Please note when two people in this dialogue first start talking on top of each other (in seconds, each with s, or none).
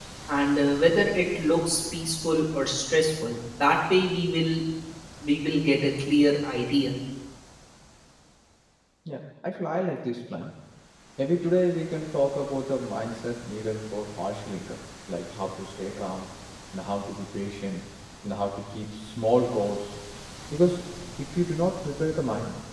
none